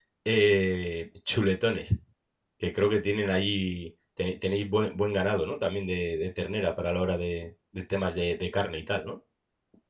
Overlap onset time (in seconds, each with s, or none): none